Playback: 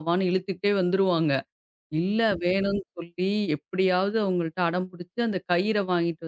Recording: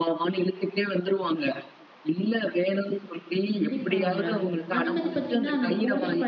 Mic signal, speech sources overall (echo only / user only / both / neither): both